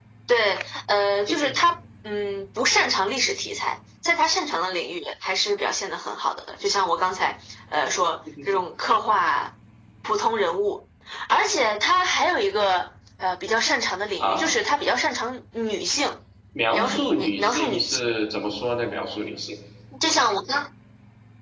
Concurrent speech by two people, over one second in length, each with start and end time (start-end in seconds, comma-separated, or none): 16.7-18.0